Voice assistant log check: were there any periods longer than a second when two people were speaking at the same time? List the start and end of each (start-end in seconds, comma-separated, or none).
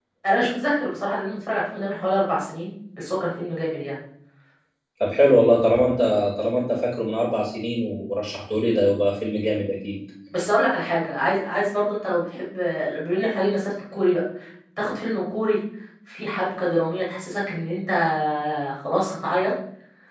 none